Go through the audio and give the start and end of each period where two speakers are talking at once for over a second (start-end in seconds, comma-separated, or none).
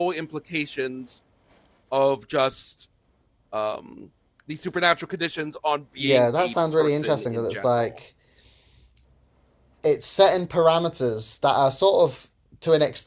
6.0-8.0